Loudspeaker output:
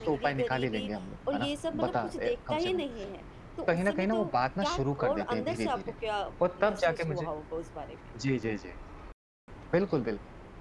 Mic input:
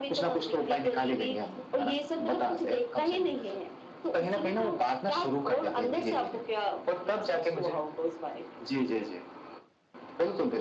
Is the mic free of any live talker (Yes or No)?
Yes